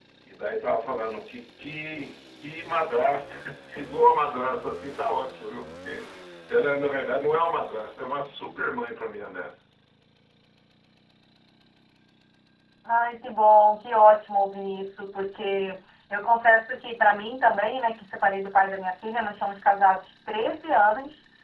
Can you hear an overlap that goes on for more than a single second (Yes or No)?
No